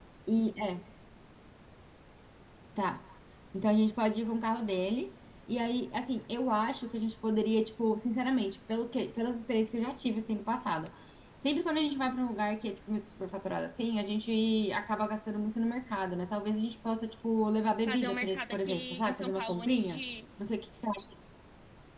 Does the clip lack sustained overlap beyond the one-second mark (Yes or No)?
No